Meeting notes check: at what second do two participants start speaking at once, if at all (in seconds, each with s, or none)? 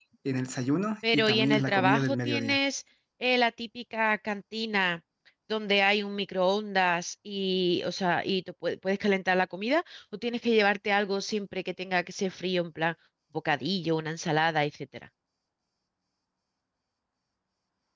1.1 s